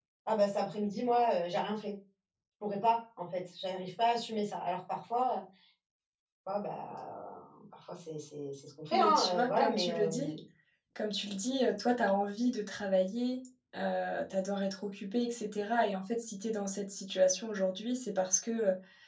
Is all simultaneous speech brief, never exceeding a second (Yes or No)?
No